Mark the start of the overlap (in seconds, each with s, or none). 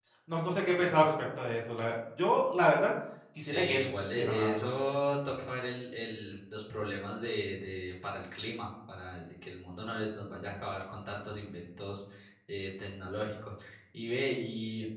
3.4 s